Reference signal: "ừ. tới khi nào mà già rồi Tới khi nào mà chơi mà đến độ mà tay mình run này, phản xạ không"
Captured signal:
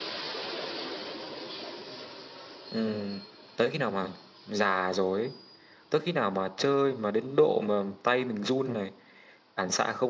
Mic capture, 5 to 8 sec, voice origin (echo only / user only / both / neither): echo only